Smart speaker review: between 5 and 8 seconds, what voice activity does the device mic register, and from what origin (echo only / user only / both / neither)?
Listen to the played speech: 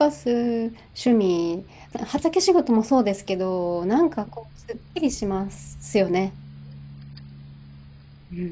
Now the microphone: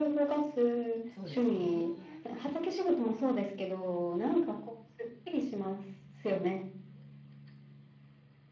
echo only